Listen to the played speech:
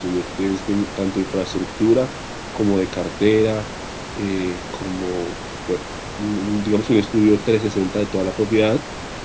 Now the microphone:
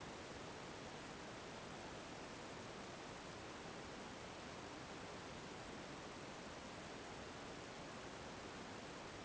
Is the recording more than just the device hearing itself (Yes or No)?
No